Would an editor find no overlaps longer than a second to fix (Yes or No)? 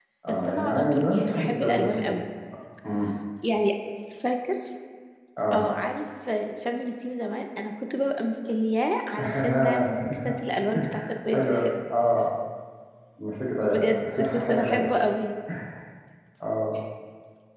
No